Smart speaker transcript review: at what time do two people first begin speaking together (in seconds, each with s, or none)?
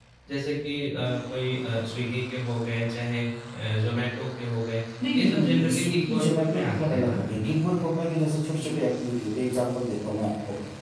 5.0 s